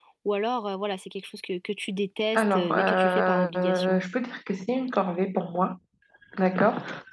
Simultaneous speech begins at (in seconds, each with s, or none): 2.3 s